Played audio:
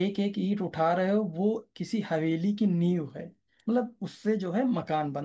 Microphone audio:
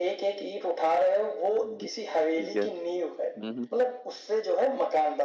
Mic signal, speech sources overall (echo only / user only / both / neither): both